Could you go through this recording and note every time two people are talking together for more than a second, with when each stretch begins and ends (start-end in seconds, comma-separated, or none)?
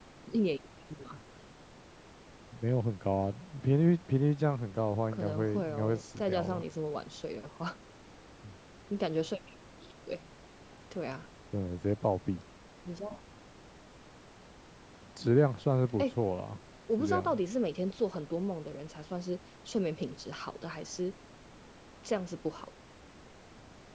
5.1-6.6